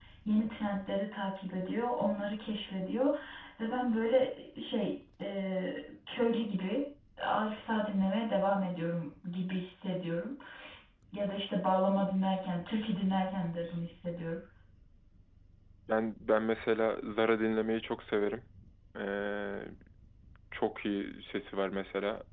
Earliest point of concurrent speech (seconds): none

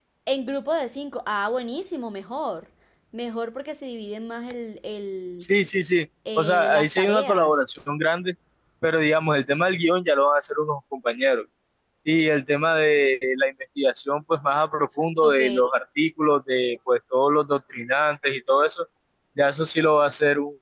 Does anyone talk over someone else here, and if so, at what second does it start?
6.4 s

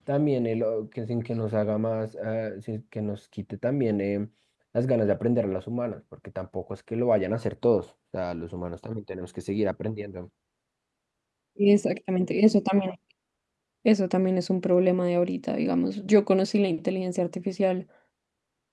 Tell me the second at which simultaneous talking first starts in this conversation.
none

